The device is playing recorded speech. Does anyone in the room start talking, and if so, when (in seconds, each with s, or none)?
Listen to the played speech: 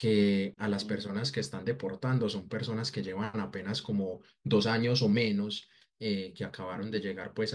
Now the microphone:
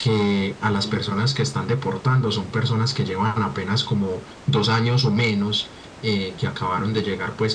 none